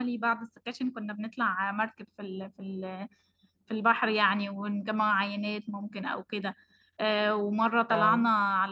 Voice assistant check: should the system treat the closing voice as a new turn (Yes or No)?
No